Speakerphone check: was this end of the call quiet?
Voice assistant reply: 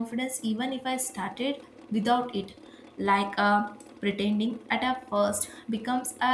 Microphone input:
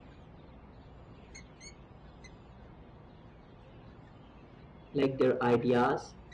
No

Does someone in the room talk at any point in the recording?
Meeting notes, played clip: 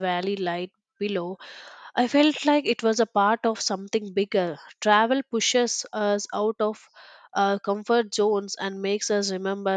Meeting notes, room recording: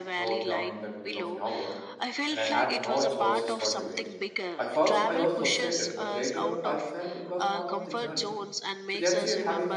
Yes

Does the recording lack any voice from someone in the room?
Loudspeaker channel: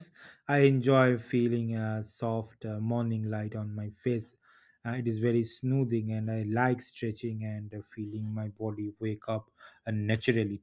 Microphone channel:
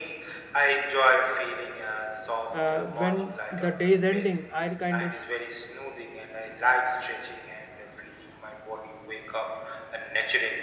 No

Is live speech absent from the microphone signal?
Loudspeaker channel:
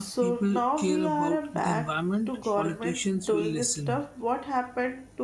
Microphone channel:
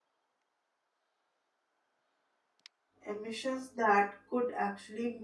No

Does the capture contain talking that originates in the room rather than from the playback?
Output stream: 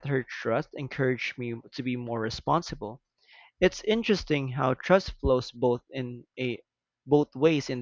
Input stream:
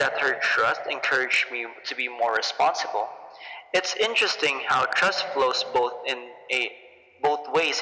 No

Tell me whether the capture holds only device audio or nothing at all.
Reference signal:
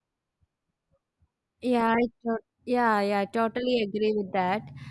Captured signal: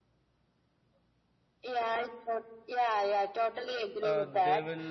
No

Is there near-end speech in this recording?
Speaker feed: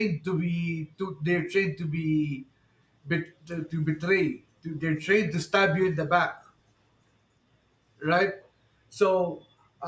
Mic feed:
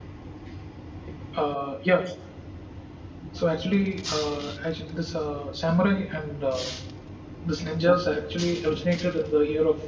Yes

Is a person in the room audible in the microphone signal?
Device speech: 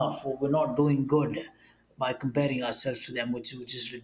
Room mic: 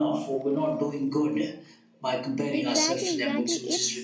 Yes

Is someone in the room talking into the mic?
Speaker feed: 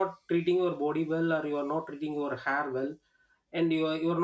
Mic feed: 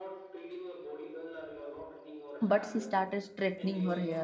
Yes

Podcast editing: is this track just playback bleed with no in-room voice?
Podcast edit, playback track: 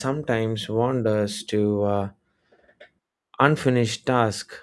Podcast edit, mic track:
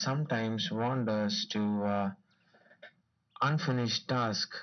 Yes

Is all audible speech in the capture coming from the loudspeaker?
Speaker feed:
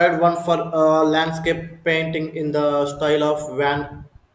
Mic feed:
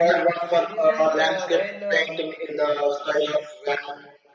No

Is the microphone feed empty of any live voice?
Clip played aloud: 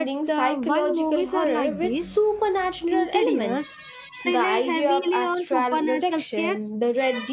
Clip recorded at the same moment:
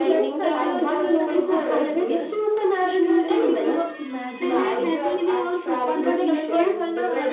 No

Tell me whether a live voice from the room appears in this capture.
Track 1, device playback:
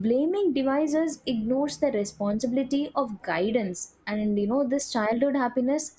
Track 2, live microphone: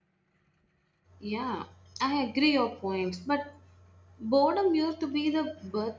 Yes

